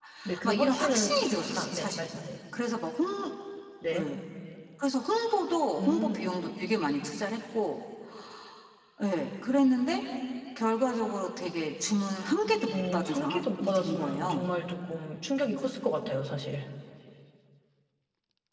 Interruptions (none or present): present